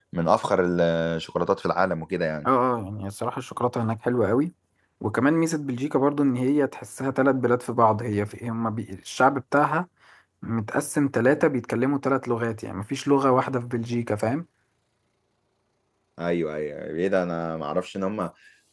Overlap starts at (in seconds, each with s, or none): none